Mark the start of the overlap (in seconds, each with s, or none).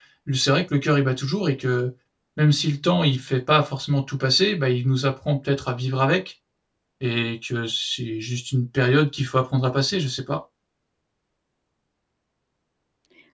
none